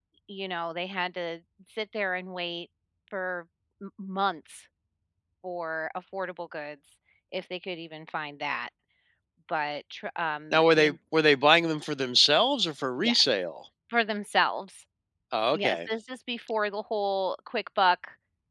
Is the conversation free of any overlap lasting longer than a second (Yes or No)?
Yes